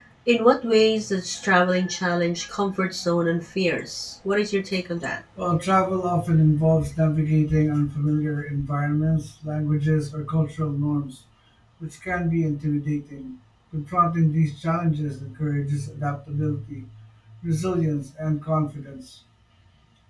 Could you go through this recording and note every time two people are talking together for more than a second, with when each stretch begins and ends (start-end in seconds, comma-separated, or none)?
none